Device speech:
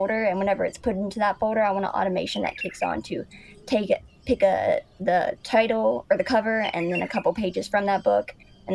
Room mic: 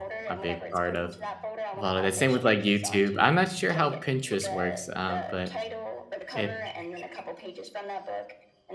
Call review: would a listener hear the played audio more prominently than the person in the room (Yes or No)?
No